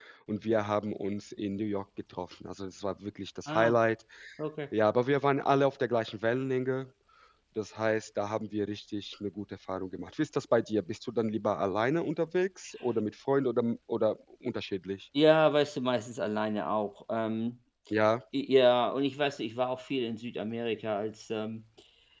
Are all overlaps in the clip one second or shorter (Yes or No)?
Yes